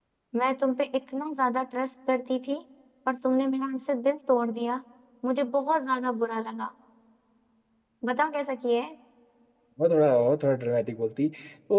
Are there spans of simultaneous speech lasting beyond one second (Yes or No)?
No